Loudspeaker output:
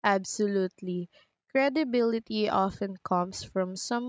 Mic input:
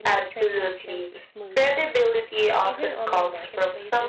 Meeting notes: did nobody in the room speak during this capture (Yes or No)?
No